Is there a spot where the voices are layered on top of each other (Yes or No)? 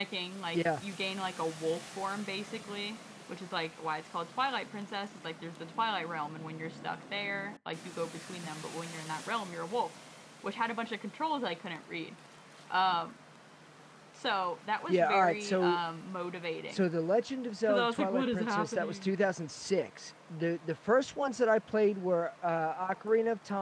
Yes